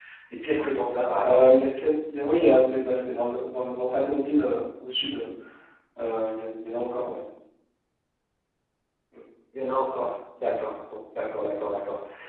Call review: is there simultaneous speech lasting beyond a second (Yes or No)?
No